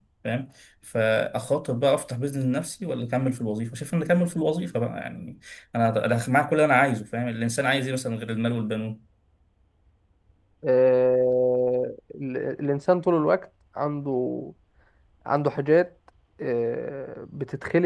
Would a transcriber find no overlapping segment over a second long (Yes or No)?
Yes